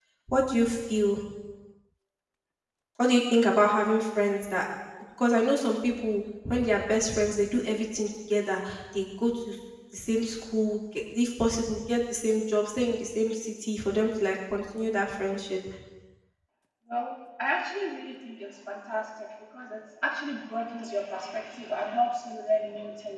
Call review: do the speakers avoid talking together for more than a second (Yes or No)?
Yes